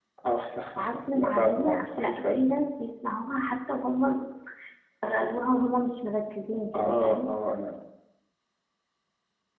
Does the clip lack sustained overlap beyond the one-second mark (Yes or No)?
No